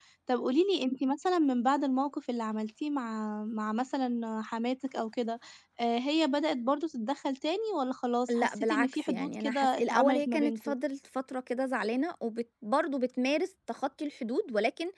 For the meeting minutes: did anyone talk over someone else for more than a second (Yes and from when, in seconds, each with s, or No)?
Yes, from 8.3 s